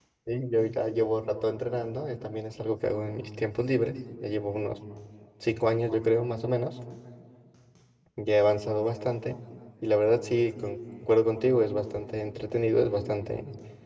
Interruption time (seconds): none

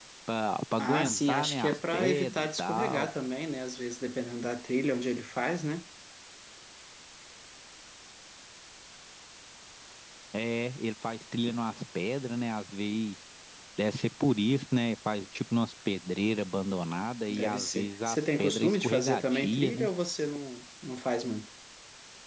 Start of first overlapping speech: 0.8 s

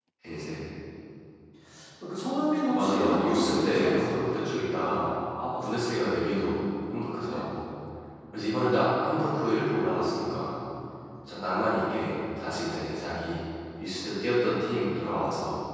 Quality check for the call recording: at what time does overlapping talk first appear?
2.7 s

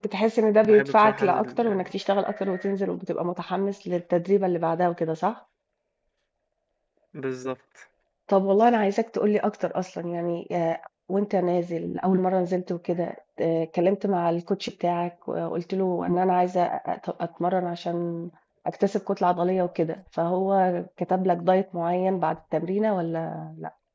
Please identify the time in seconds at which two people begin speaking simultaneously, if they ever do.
0.7 s

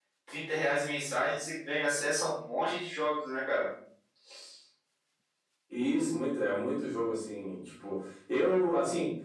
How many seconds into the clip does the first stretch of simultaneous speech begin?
none

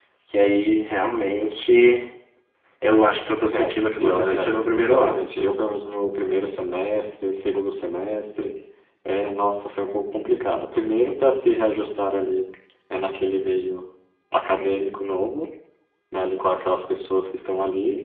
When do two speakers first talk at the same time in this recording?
3.5 s

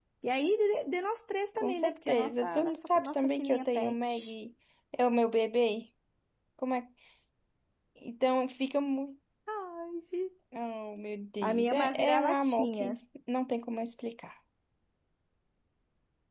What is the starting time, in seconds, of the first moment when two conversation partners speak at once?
1.6 s

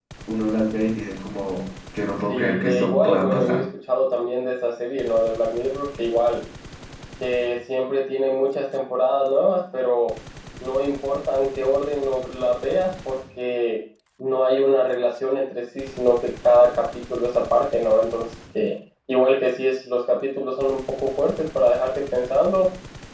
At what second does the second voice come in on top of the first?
2.3 s

